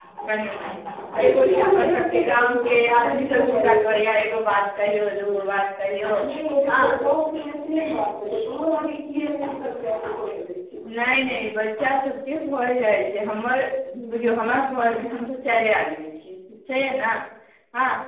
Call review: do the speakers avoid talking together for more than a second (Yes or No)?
No